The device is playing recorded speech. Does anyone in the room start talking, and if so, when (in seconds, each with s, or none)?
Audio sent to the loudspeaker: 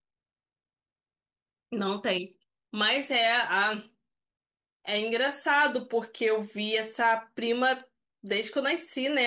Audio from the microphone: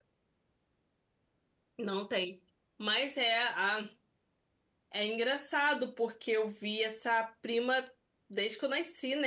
none